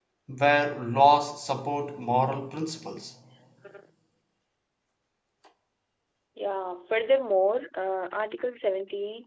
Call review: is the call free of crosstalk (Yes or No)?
Yes